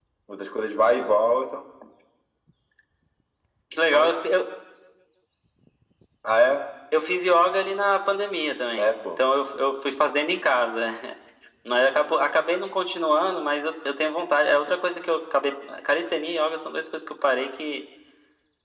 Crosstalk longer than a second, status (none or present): none